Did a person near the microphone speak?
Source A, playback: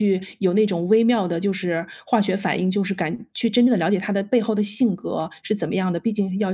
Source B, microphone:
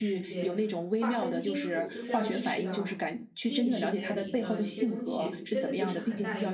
Yes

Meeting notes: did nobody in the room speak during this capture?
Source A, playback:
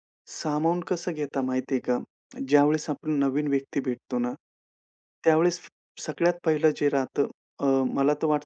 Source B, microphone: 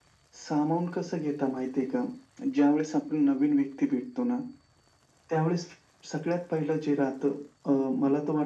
Yes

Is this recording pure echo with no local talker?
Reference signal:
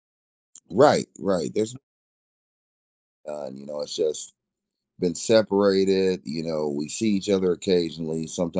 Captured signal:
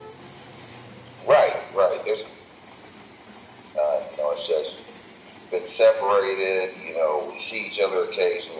Yes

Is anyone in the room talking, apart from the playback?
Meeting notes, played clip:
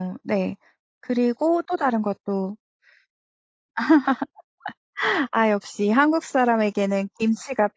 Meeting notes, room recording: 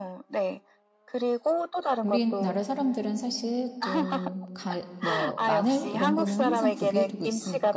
Yes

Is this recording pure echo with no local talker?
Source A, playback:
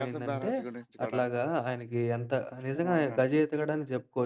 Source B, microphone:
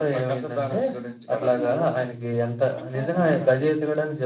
No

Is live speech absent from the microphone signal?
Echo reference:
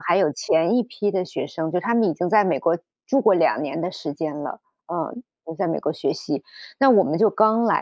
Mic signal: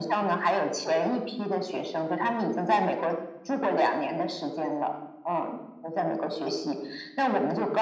Yes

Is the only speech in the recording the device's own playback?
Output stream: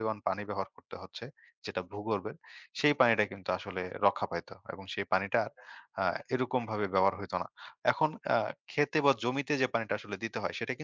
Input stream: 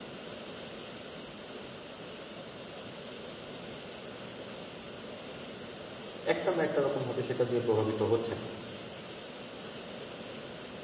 No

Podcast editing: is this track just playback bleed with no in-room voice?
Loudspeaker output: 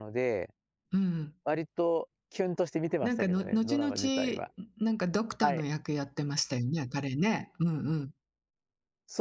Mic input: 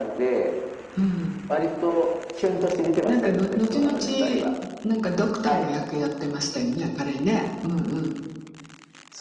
Yes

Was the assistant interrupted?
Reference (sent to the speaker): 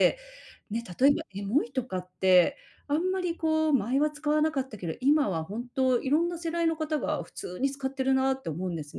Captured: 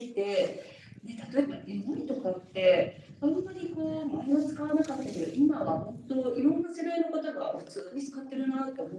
No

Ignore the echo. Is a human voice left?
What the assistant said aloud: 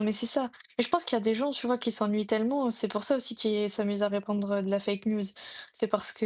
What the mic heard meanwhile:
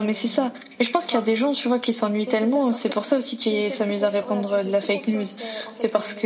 Yes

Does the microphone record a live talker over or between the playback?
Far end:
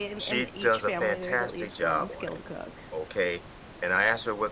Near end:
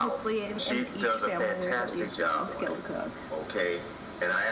No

